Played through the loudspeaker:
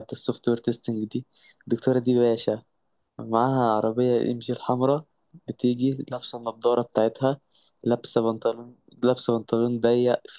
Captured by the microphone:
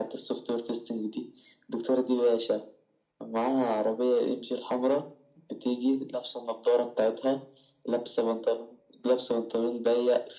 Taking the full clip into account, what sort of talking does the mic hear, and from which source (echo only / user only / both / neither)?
echo only